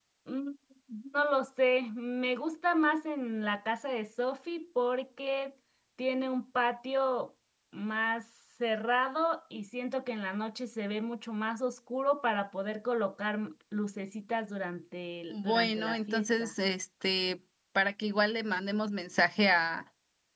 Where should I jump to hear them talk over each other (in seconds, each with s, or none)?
15.3 s